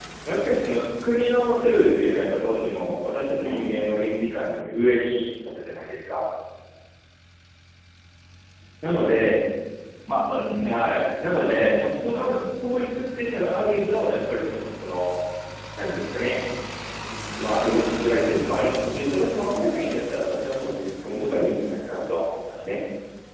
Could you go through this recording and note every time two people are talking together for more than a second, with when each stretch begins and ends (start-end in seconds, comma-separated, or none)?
11.3-12.7